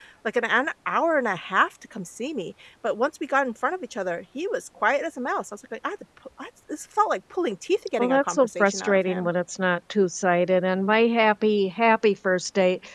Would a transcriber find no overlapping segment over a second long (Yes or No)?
No